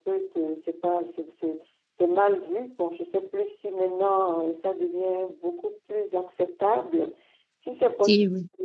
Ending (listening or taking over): listening